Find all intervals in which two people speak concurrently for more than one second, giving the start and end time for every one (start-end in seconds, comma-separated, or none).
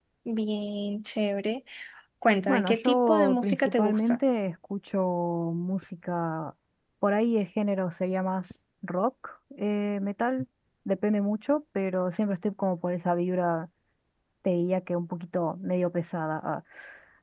2.5-4.2